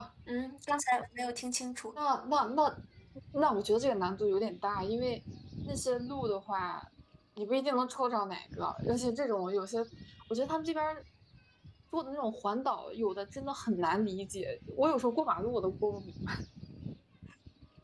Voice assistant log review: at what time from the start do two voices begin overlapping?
none

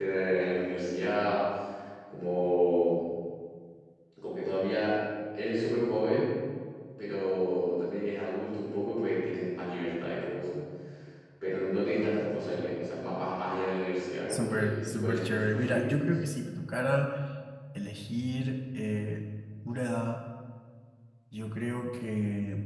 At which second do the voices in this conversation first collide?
14.3 s

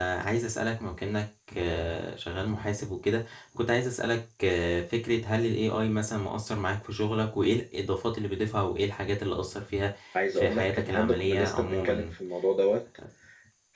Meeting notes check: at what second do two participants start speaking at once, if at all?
10.3 s

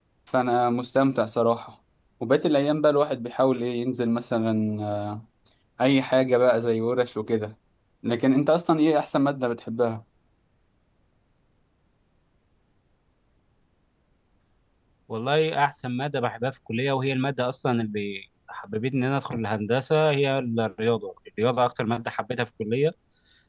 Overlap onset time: none

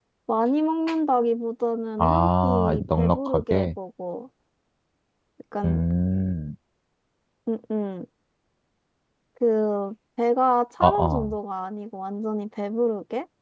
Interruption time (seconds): 2.0 s

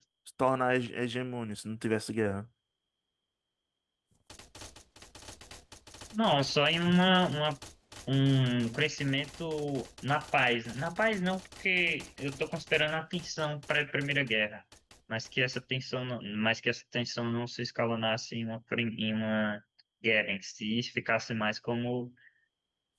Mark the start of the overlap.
none

